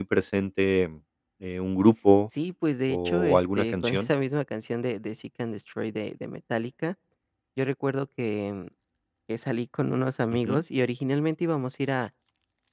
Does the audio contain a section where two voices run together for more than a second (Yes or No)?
Yes